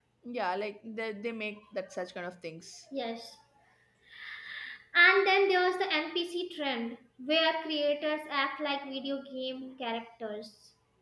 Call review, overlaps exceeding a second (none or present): none